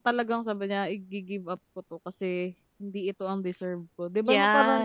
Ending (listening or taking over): taking over